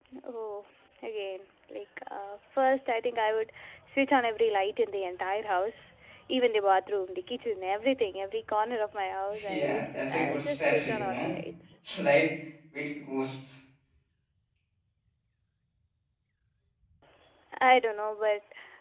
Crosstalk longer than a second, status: present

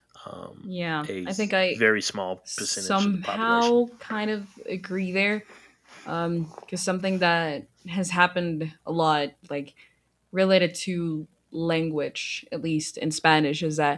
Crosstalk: present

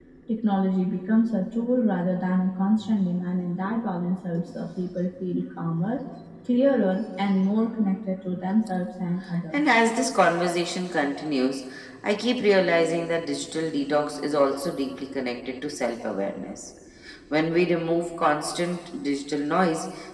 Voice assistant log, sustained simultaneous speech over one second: none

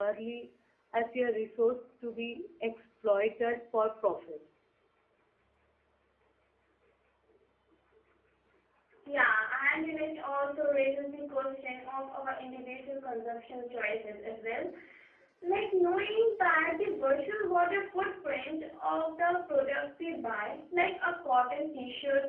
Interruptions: none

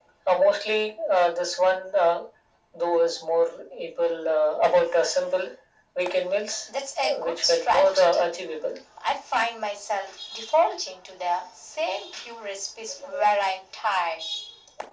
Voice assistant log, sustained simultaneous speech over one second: present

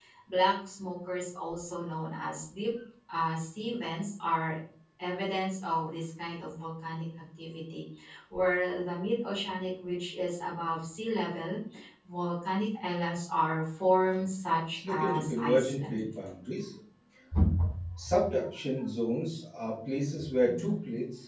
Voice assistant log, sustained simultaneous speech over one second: present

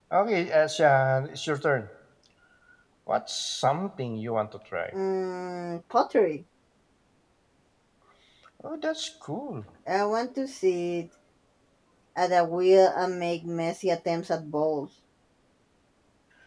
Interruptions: none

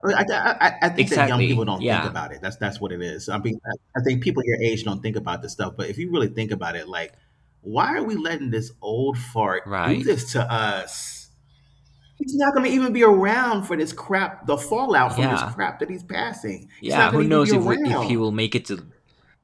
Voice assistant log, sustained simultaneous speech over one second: present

